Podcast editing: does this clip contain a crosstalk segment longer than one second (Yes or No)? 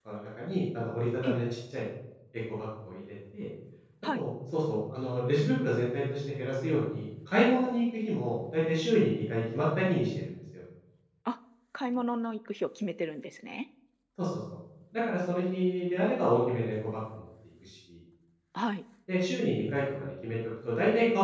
No